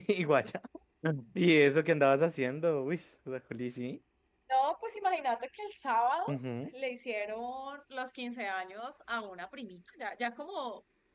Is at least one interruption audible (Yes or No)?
No